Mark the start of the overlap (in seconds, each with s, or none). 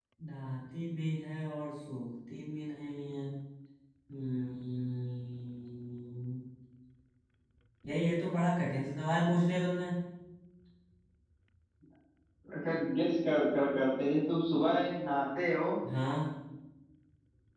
none